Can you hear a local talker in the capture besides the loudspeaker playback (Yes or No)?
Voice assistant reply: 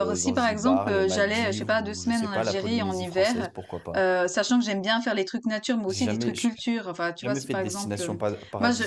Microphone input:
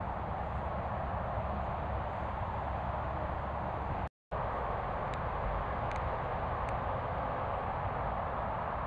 No